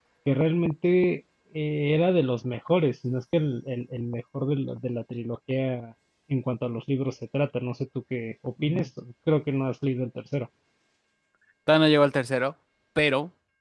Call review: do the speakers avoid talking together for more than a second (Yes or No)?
Yes